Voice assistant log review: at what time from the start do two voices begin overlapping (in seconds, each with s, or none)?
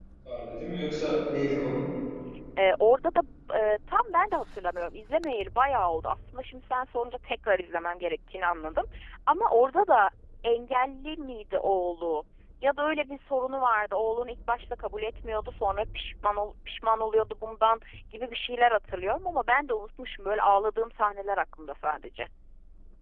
none